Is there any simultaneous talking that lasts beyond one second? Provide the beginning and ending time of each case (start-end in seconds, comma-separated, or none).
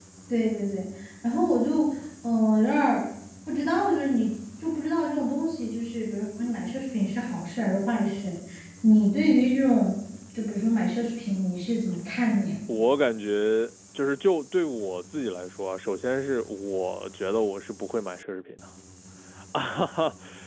none